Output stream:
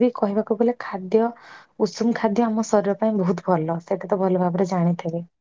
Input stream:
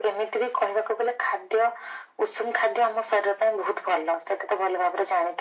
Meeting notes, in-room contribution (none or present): none